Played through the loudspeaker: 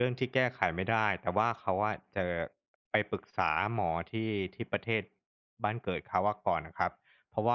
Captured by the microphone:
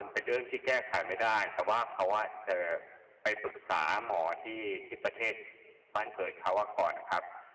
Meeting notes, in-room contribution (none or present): none